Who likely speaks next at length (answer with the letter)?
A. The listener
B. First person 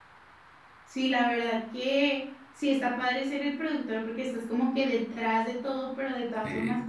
B